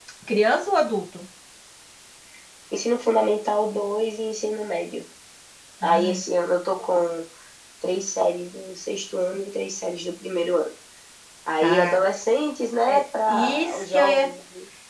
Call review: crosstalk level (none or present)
present